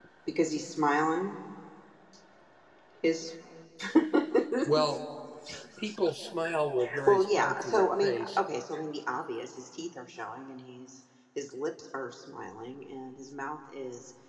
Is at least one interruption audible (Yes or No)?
Yes